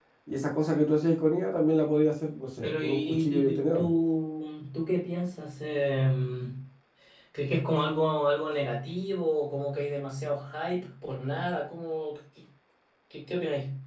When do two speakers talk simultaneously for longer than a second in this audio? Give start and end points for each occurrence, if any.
2.6-3.9

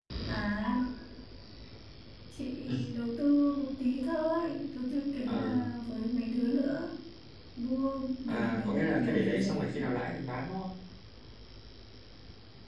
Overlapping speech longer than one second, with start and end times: 8.3-10.0

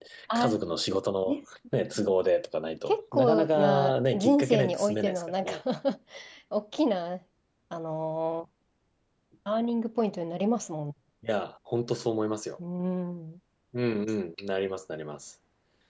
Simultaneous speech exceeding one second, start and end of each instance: 2.9-5.5

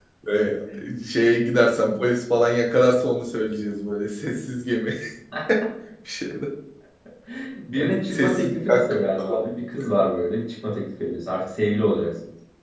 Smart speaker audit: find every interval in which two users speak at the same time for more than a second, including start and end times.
7.8-9.4

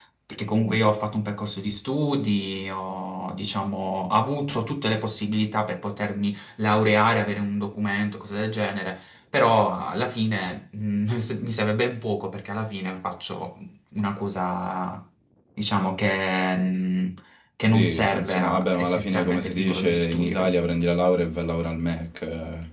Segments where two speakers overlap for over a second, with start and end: 17.7-20.3

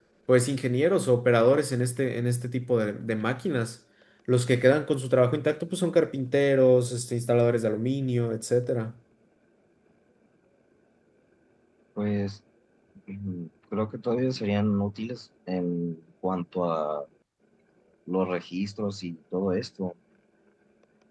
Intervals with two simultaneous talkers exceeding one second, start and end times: none

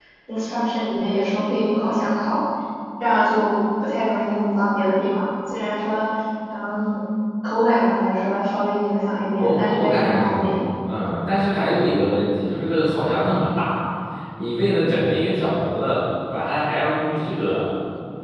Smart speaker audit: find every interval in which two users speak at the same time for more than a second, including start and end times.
9.4-10.7

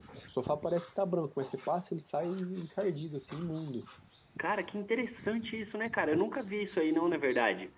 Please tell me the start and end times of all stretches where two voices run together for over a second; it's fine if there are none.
none

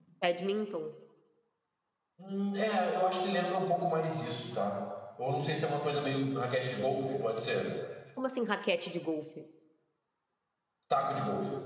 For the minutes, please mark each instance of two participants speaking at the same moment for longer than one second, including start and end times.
none

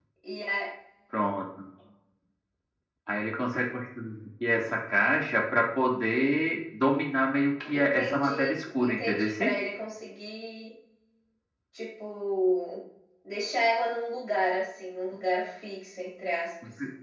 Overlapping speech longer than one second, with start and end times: 7.7-9.2

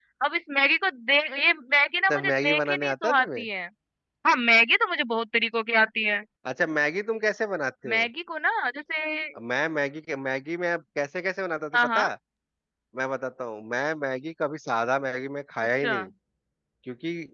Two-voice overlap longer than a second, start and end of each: 2.1-3.4

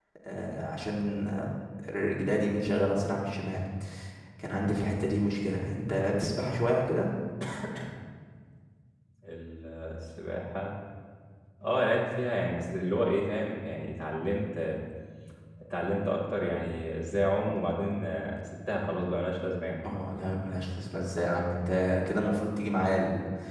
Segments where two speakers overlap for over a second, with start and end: none

